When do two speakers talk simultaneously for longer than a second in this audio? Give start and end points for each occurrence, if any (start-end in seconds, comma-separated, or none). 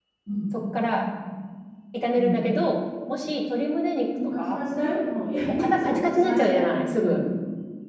5.4-7.2